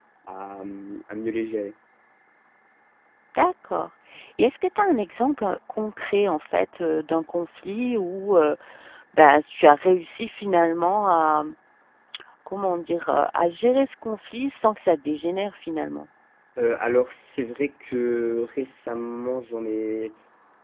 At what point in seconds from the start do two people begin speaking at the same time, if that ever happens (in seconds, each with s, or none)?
none